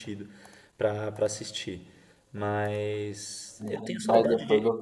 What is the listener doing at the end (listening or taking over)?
taking over